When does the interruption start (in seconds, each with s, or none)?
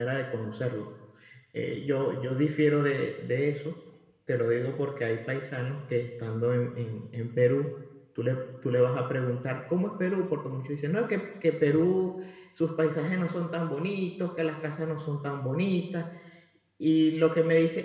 none